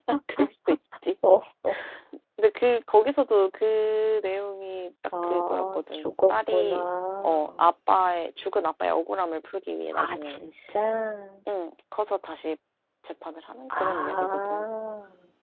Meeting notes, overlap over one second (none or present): present